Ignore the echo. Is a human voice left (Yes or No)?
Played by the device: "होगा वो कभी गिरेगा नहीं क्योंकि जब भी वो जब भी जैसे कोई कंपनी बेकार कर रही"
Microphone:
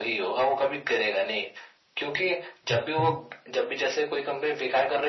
Yes